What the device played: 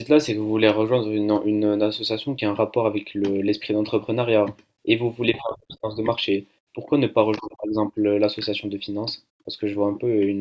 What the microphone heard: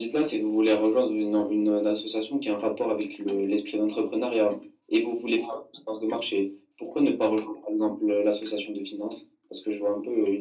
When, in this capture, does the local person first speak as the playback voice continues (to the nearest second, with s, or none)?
none